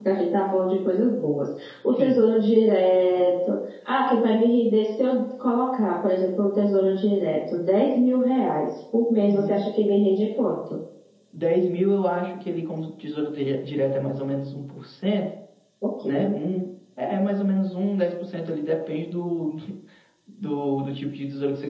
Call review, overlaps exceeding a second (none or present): none